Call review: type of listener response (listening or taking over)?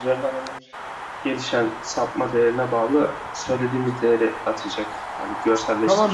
taking over